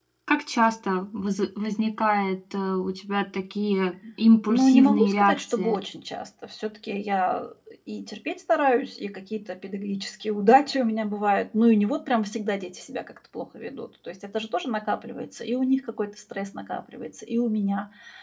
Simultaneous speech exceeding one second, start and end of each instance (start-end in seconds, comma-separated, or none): 4.5-5.8